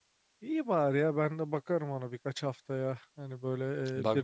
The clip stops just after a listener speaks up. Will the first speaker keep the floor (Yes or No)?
Yes